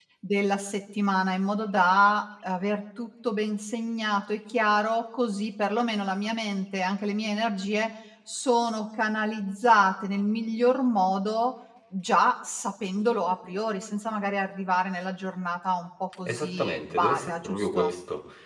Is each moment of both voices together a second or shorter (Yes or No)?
No